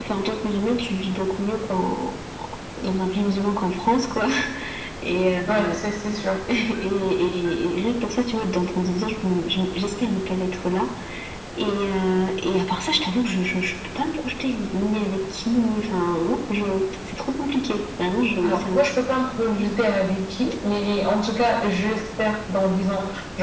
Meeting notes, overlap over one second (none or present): none